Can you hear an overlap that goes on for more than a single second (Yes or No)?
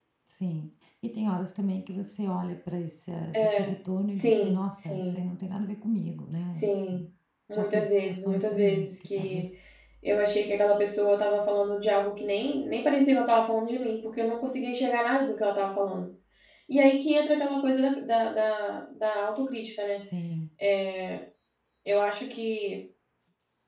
Yes